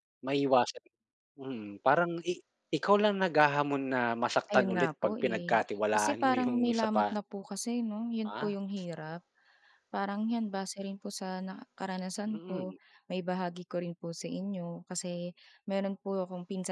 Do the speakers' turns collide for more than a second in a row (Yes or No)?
Yes